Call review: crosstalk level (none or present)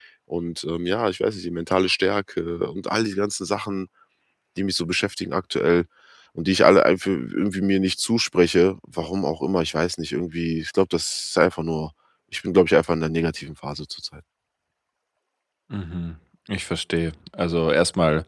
none